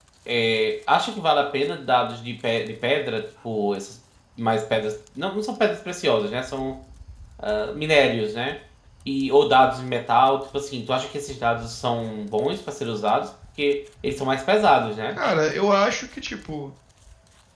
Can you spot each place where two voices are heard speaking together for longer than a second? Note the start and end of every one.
none

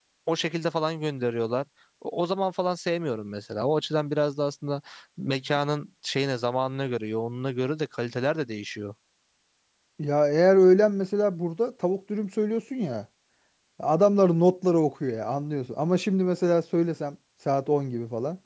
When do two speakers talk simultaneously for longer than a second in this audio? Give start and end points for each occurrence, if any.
none

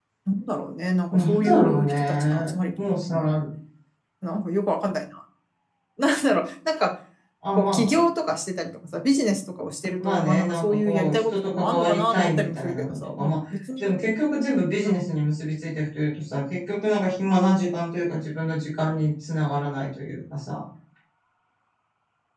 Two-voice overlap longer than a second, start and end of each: 1.1-3.2, 10.0-13.4

